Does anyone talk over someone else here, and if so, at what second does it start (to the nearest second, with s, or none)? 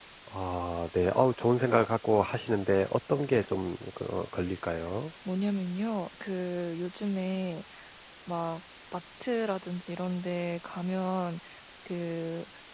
none